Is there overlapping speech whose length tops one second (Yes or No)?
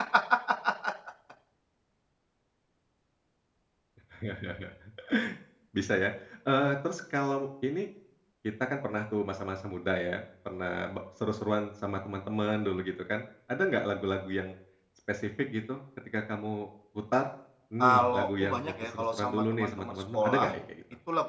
Yes